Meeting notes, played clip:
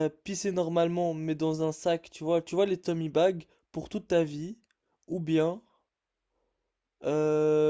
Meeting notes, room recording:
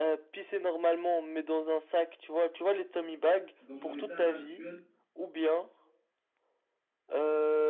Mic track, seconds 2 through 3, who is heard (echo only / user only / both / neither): echo only